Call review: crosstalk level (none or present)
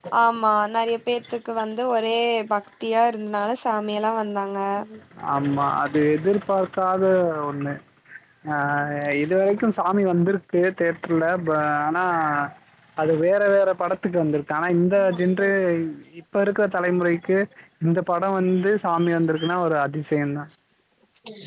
none